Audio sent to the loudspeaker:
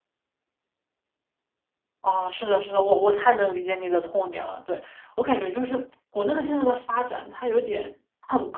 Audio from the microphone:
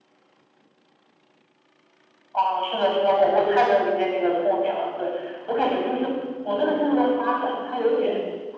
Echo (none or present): present